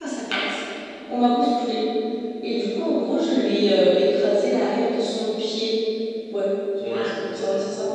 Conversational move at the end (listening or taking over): listening